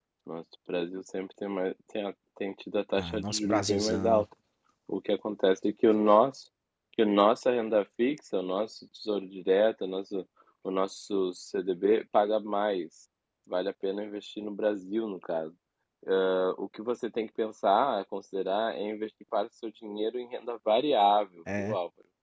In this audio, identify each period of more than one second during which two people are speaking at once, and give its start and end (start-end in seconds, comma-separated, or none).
3.0-4.2